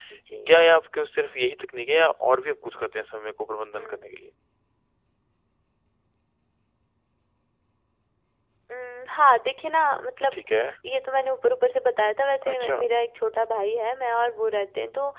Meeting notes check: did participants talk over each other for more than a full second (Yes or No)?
No